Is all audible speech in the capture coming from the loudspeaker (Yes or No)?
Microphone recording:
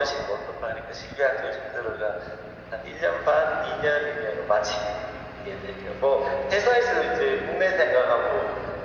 Yes